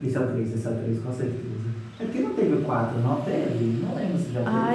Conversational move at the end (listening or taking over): taking over